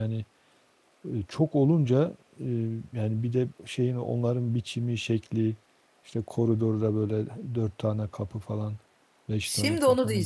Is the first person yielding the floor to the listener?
Yes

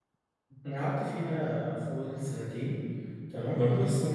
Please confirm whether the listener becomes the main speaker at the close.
No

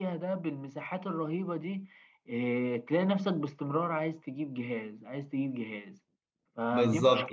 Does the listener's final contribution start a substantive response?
Yes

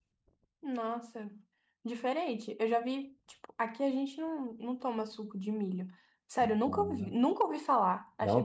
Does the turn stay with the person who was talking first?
No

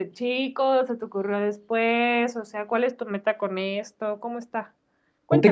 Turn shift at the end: Yes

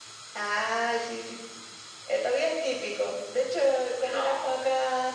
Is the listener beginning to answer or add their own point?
No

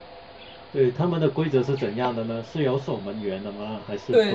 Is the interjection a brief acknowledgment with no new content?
No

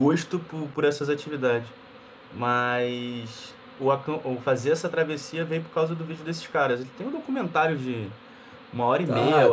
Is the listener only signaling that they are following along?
No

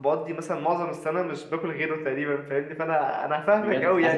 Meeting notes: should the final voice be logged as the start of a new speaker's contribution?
Yes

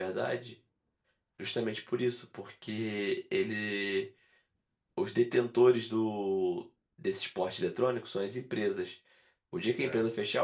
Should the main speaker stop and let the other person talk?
No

